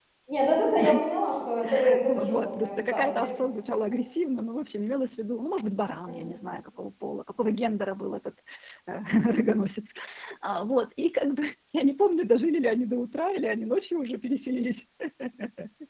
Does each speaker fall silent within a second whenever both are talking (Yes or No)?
No